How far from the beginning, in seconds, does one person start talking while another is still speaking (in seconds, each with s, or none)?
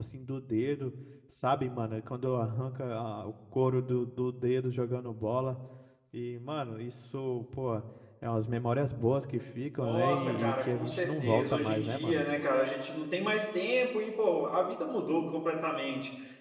9.8 s